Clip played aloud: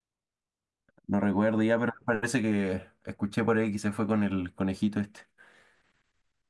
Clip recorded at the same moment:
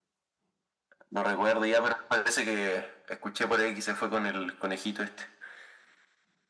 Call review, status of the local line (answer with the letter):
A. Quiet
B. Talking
A